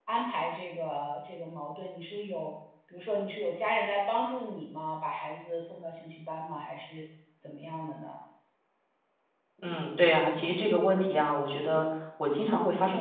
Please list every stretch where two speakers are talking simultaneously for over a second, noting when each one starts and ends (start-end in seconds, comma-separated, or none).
none